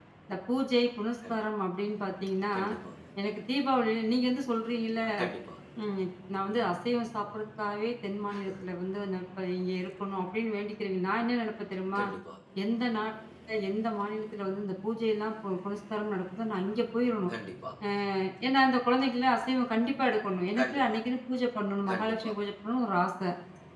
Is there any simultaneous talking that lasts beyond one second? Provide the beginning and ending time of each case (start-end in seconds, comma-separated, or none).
none